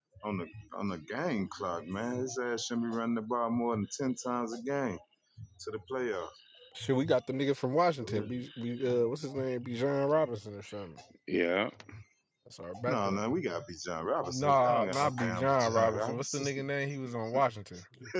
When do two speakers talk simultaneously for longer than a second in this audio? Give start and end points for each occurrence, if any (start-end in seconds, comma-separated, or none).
14.2-16.4